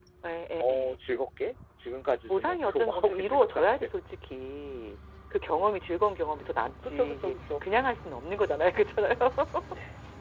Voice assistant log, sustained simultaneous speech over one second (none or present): present